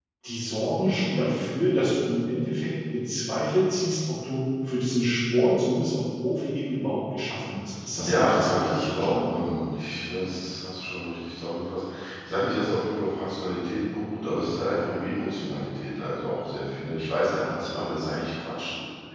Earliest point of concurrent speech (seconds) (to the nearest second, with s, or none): 8 s